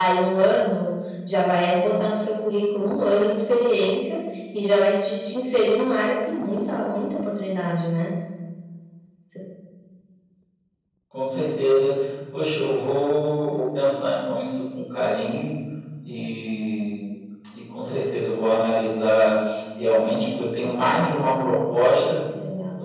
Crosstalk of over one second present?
No

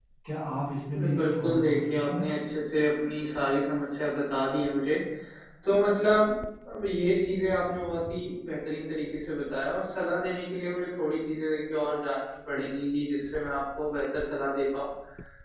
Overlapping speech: Yes, from 0.9 s

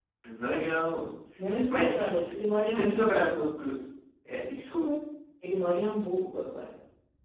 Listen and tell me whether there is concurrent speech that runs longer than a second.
Yes, from 1.7 s

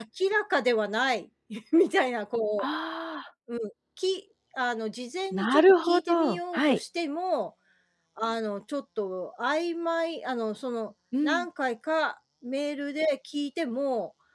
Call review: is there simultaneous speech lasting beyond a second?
Yes, from 5.3 s

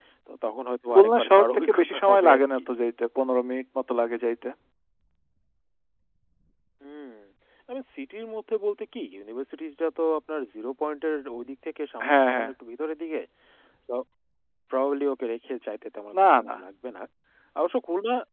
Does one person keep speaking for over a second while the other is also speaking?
Yes, from 0.9 s

